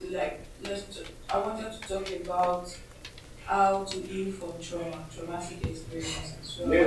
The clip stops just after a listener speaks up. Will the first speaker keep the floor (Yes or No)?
No